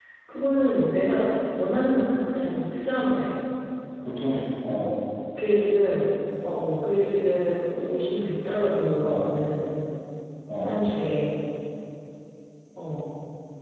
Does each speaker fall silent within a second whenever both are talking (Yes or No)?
Yes